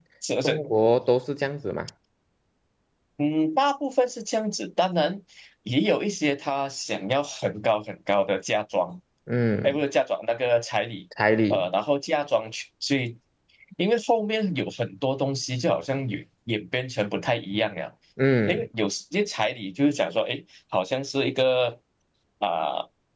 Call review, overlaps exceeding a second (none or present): none